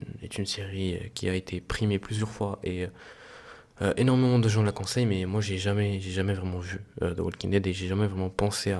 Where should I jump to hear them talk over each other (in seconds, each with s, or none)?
none